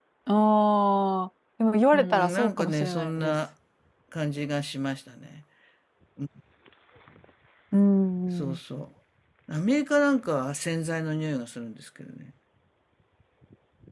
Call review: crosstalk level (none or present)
present